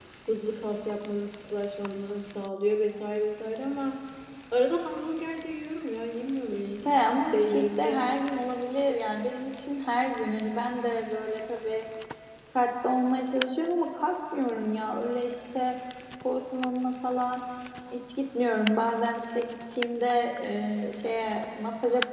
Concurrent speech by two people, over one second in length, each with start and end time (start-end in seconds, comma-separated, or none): 6.5-8.0